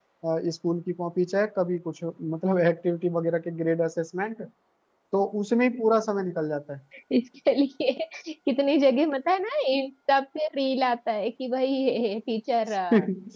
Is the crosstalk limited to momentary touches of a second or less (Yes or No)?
Yes